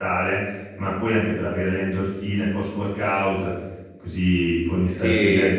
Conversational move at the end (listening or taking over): listening